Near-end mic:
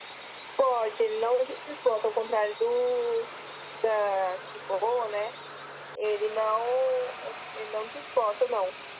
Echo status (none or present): present